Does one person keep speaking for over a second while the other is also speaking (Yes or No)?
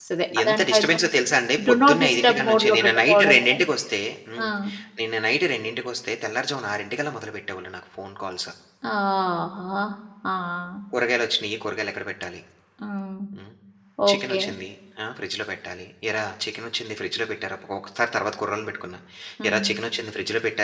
Yes